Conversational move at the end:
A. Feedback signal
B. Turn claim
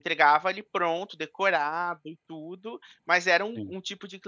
A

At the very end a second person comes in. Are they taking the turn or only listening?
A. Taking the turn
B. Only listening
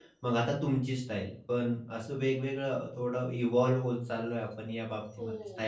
A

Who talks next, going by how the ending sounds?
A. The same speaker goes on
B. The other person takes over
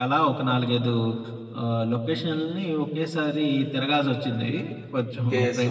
B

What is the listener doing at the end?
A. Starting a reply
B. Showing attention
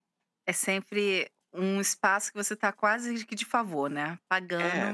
A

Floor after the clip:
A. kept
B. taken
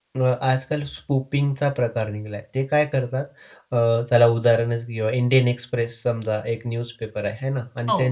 A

